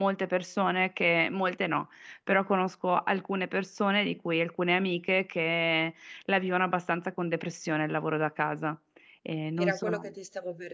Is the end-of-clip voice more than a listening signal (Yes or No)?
Yes